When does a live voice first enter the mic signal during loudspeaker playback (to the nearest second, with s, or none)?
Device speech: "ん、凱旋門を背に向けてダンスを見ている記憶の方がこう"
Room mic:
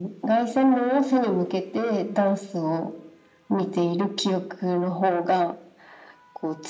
none